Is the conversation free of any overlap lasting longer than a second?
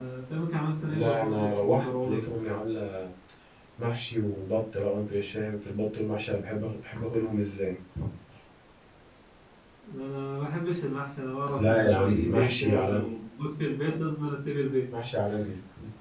No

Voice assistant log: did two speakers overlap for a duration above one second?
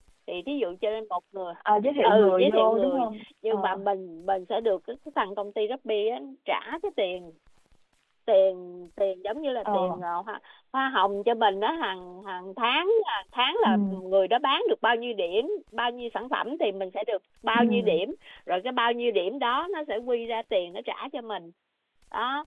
Yes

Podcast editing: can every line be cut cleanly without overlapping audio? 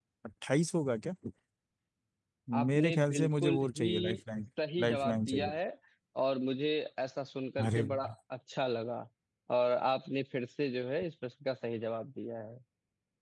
No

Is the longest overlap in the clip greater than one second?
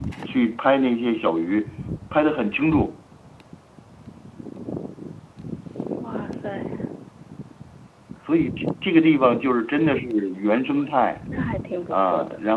No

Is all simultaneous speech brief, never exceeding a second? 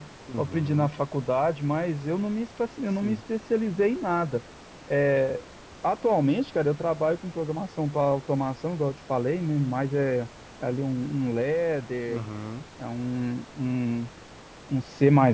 Yes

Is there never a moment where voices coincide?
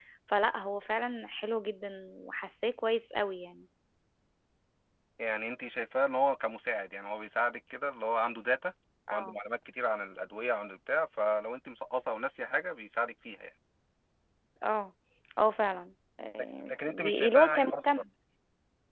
No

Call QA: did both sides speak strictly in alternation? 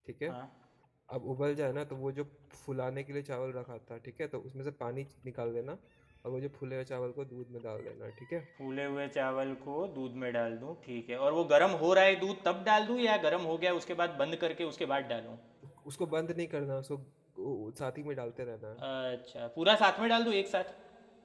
Yes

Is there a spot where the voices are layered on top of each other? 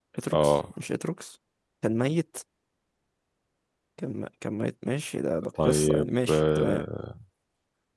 Yes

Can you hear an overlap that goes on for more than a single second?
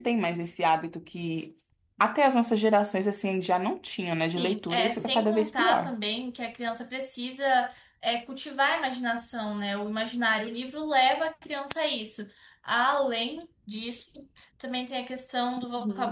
Yes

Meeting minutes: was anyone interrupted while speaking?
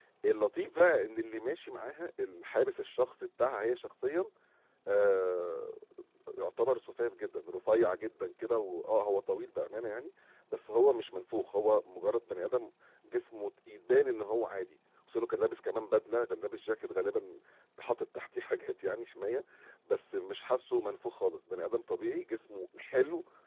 No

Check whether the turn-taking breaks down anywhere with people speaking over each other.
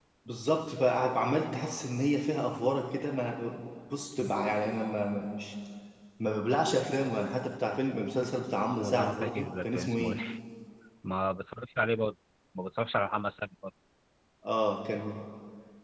Yes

